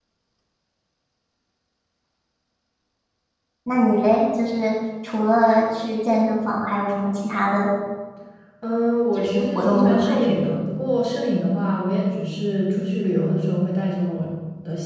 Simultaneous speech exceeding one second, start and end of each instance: 9.2-10.5

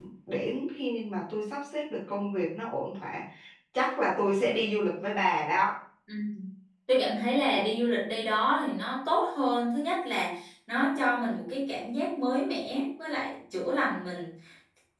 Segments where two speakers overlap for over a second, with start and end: none

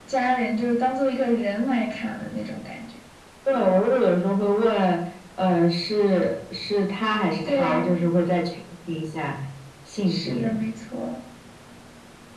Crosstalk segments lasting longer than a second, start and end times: none

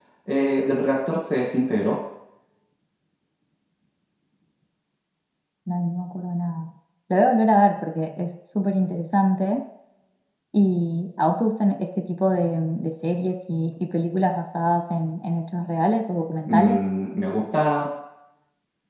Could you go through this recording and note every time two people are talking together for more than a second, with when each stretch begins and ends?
none

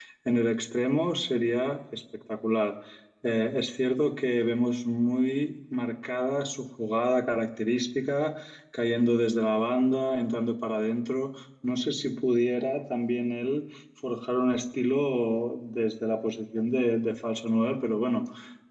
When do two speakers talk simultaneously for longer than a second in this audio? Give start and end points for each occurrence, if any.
none

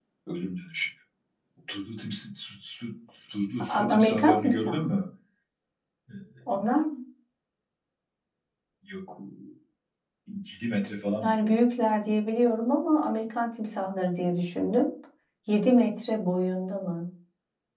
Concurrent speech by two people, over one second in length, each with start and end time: 3.7-4.9

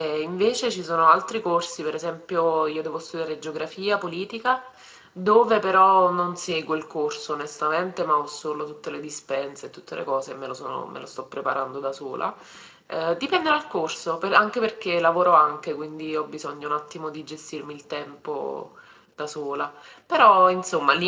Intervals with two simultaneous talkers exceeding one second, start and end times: none

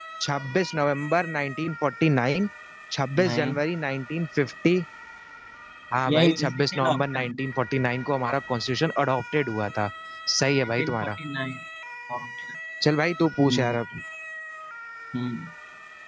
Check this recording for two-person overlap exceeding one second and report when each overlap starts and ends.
6.1-7.4

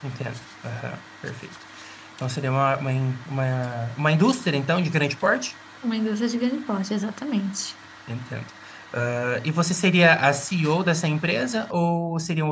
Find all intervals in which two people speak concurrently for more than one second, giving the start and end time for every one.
none

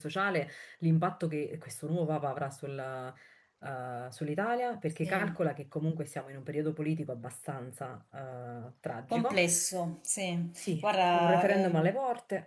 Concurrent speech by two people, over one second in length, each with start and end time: 10.6-12.0

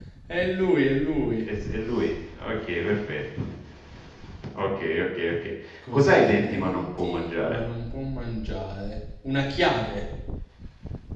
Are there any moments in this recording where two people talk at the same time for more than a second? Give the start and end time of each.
5.9-7.6

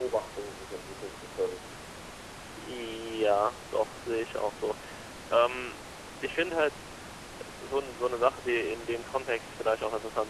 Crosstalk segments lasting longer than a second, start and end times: none

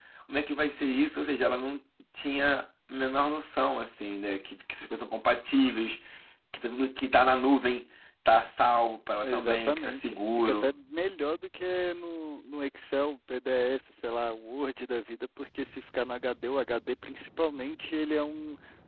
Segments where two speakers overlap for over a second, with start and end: 9.2-10.7

